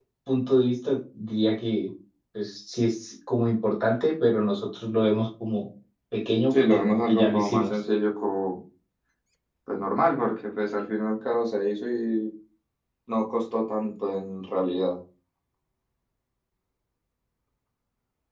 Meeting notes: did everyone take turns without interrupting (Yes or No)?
No